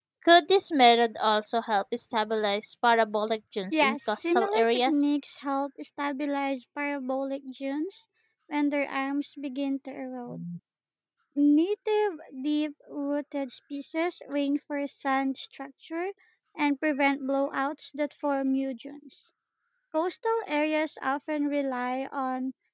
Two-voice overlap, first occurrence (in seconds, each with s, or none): 3.7 s